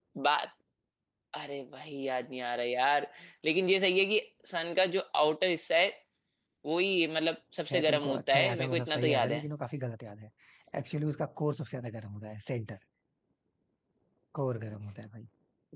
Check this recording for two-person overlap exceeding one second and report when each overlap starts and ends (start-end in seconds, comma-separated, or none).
7.7-9.4